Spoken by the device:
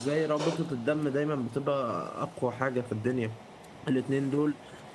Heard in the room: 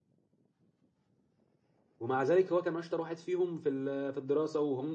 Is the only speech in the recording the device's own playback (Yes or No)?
No